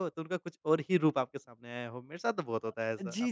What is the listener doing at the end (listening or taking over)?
taking over